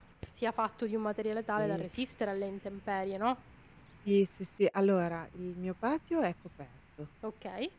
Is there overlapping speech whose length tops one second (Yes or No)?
No